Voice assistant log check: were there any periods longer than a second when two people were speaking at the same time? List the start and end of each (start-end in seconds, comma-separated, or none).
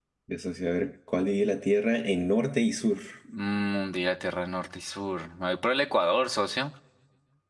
none